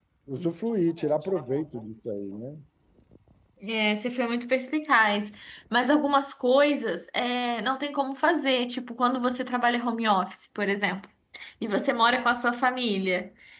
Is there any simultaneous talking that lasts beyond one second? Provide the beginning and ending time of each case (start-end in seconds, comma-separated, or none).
none